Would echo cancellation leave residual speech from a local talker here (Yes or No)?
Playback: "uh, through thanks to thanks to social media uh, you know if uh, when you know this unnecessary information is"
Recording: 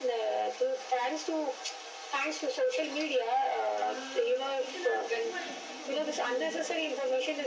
Yes